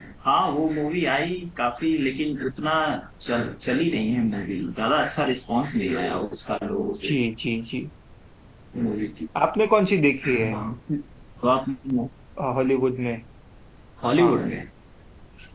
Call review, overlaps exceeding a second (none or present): none